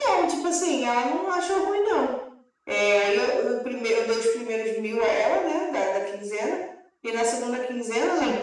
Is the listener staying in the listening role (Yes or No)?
Yes